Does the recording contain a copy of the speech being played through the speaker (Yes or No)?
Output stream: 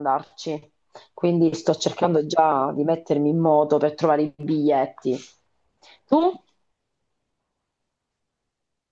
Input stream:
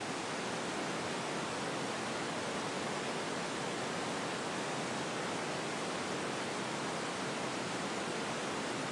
No